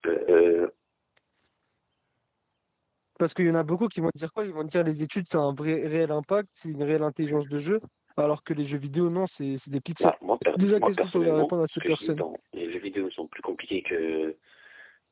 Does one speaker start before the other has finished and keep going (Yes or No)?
Yes